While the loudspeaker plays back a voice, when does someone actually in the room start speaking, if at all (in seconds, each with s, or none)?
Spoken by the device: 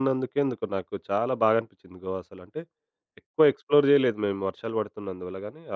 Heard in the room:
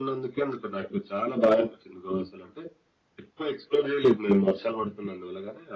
none